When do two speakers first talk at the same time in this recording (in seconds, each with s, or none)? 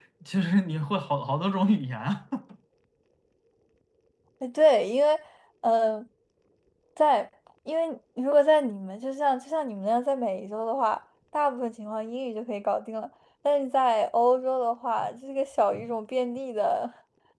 none